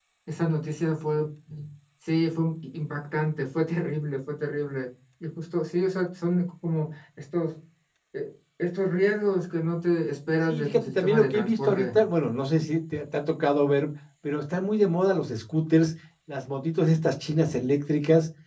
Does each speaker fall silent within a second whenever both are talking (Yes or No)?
No